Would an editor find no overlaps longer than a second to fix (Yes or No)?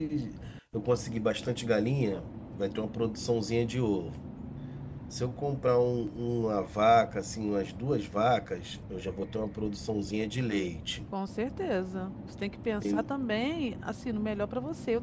Yes